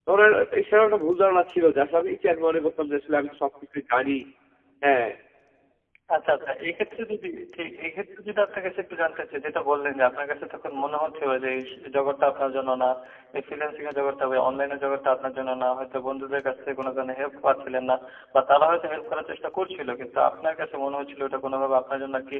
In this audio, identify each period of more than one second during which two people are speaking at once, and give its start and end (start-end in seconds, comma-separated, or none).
none